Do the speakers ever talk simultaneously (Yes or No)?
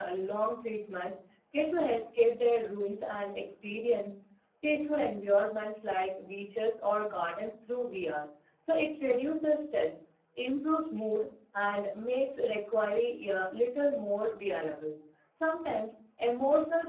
No